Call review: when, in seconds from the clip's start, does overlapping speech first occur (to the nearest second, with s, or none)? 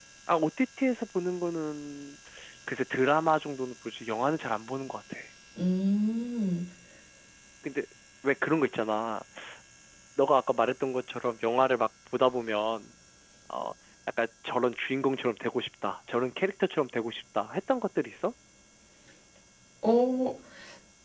none